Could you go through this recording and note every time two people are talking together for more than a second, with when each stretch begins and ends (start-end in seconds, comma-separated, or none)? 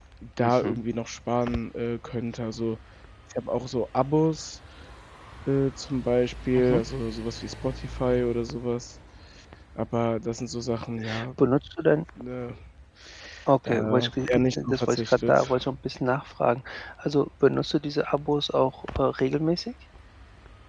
13.7-15.6